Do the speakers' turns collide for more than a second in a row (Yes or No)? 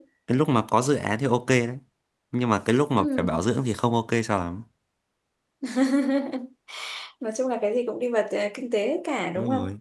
No